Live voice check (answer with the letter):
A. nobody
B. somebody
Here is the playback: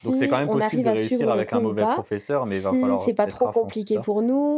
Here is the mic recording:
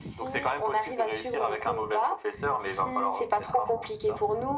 A